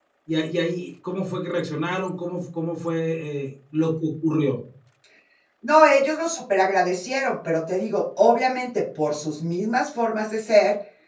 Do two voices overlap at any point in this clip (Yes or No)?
No